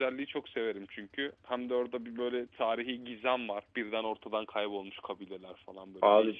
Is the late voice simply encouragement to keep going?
No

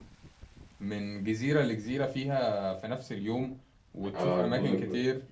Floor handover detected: Yes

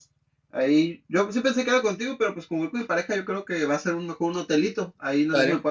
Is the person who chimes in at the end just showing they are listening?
Yes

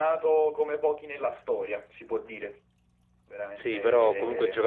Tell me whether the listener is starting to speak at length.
Yes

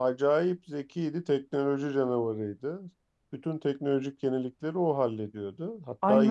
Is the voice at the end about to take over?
Yes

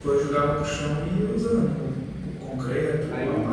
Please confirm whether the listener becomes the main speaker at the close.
Yes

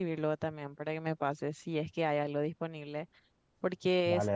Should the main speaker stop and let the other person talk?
No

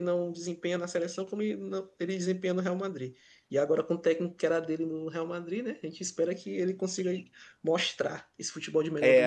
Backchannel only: No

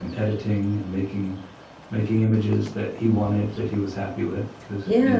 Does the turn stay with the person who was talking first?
No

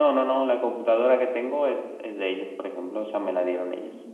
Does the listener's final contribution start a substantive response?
No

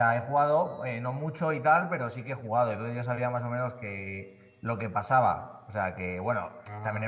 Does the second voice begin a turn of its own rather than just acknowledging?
No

